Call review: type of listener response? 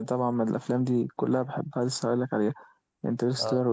listening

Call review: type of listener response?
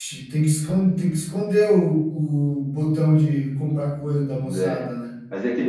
taking over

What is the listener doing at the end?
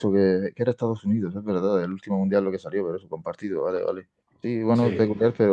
listening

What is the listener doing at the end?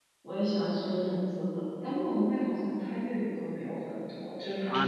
taking over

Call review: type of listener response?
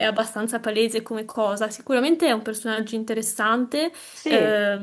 listening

